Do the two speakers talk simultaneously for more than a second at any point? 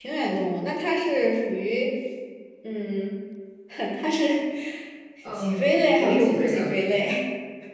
Yes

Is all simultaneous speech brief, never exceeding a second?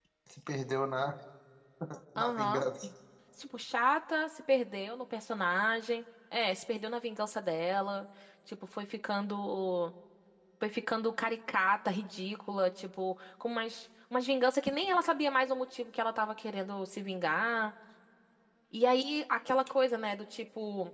Yes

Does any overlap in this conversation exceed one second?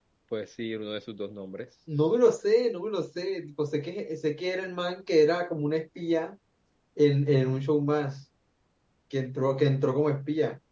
No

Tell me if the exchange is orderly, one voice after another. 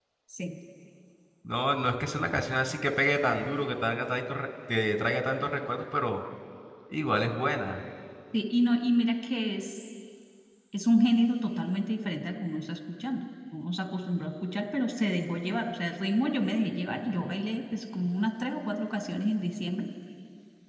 Yes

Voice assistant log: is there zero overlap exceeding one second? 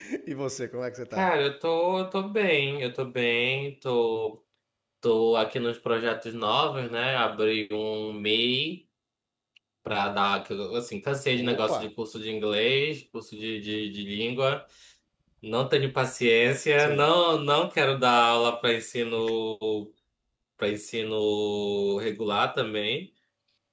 Yes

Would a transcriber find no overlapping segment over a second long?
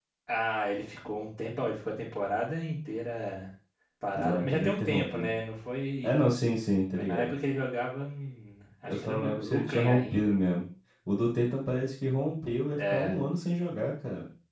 No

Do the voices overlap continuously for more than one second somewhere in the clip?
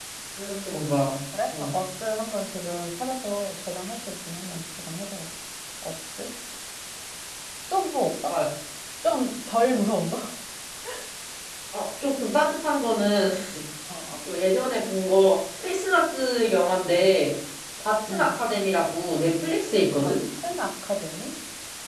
No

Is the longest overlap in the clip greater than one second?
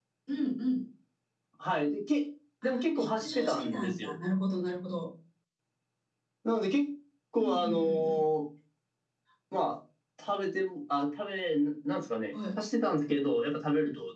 Yes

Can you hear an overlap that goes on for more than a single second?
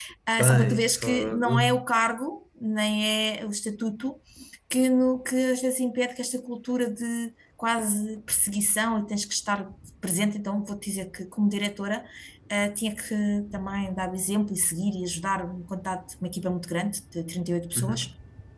Yes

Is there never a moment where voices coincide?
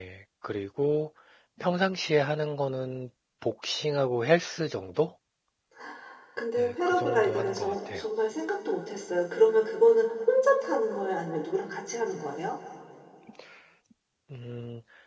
No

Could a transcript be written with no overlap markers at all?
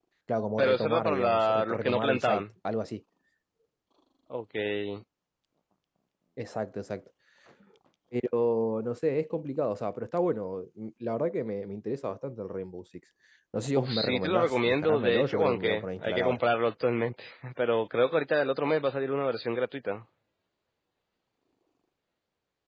No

